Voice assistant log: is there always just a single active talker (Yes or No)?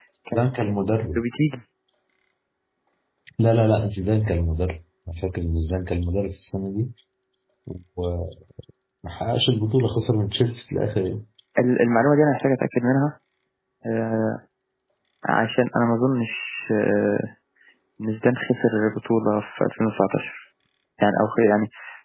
Yes